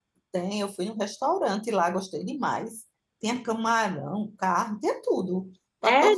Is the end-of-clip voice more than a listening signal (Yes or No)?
Yes